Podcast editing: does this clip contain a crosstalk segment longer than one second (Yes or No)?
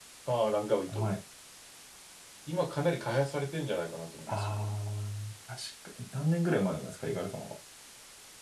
No